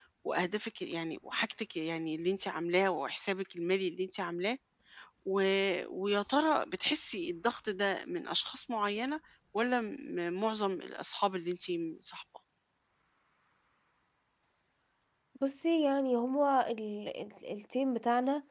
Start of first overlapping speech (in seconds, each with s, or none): none